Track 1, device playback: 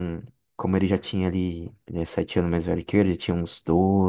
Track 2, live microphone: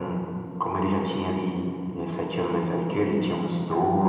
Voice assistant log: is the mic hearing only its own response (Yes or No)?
Yes